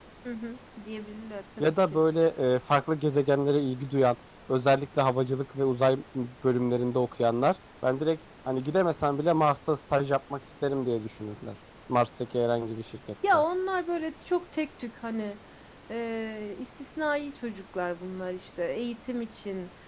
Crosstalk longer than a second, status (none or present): none